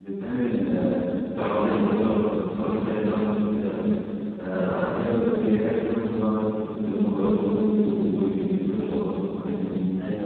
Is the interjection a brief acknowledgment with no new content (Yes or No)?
No